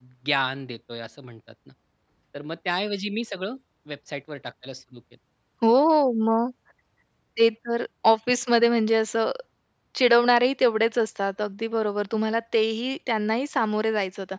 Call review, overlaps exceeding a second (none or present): none